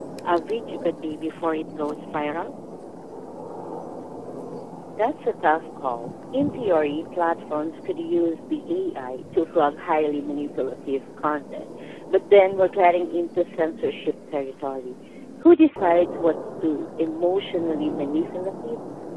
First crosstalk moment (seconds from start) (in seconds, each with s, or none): none